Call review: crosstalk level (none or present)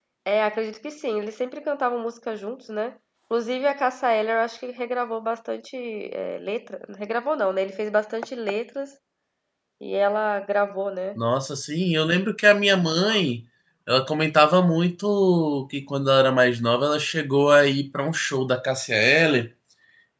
none